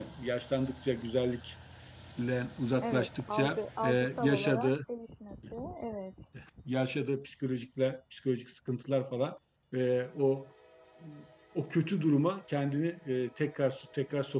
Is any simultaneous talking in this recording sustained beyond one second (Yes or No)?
Yes